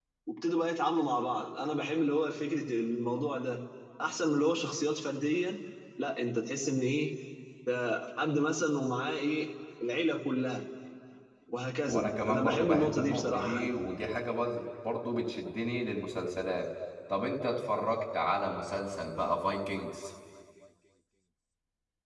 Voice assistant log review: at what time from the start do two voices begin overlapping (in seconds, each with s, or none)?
11.8 s